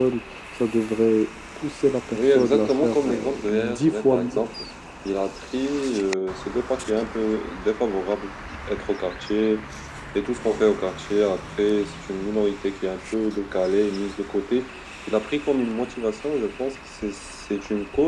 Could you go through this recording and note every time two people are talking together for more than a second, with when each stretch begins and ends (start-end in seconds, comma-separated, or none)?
2.2-4.3